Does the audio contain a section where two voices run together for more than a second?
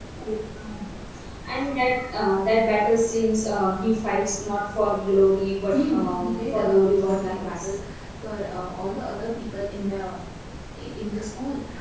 Yes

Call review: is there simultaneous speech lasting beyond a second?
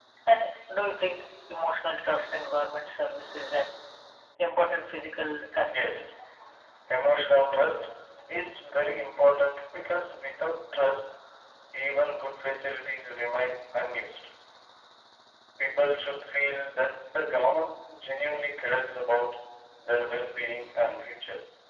No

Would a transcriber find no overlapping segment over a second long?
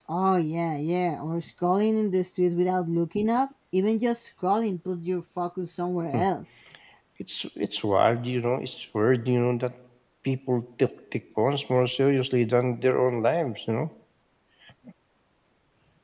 Yes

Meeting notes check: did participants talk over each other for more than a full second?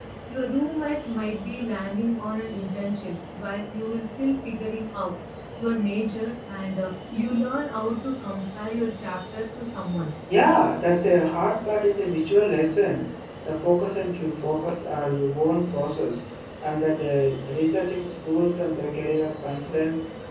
No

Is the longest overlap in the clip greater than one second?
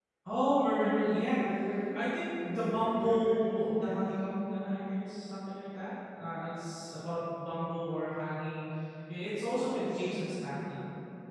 Yes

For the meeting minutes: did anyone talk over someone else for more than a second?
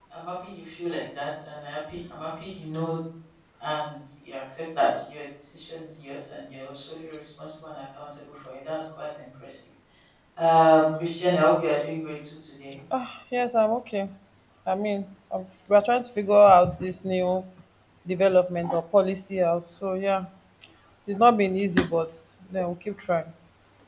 No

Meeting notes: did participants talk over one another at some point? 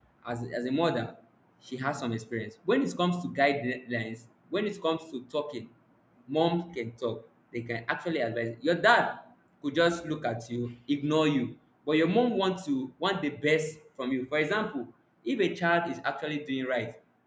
No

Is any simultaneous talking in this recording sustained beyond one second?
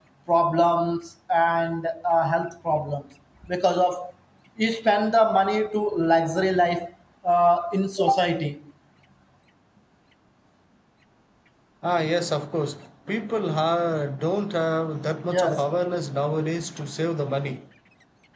No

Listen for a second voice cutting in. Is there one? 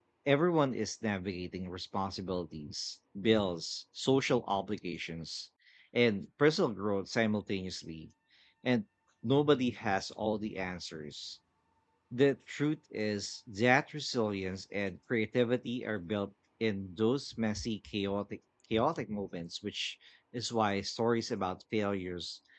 No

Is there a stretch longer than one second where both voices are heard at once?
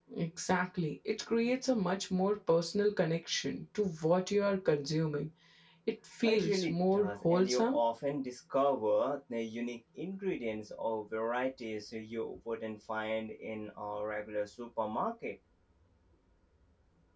Yes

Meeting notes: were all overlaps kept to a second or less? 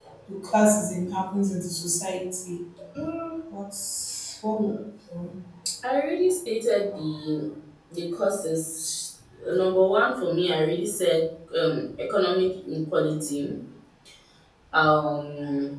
Yes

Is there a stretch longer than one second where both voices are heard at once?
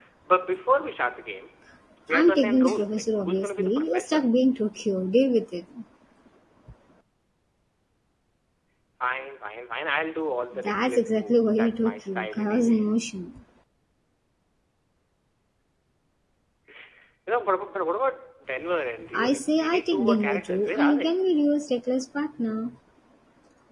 Yes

